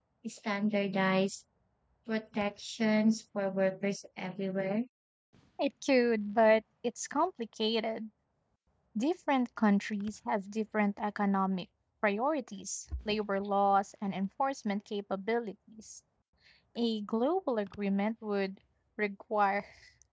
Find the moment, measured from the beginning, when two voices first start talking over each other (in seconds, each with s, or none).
none